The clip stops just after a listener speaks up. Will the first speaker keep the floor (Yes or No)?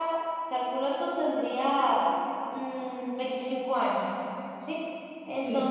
Yes